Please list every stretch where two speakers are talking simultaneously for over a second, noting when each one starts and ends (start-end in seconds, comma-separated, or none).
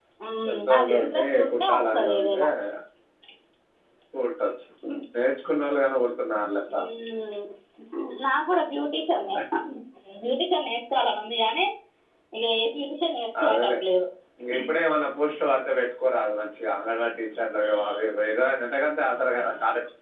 0.5-2.4